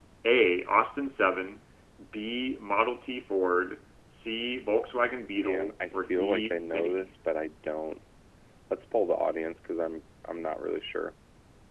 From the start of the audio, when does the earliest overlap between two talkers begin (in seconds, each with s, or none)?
5.3 s